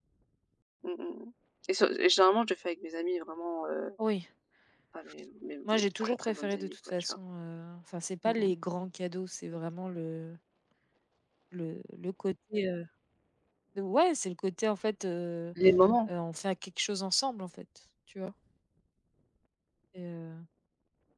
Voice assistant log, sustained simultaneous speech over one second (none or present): present